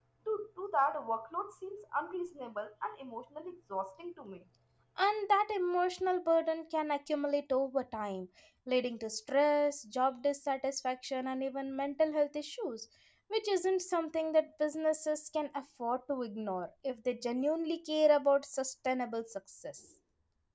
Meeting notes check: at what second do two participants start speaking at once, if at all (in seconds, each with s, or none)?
none